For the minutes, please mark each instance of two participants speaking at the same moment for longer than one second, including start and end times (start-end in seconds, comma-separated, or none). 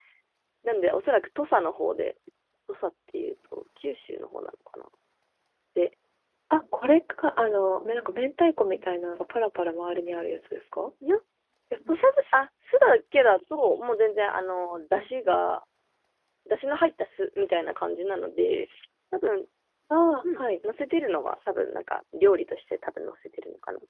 none